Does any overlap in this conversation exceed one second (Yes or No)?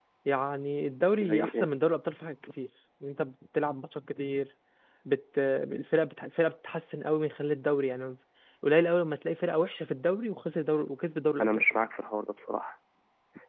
No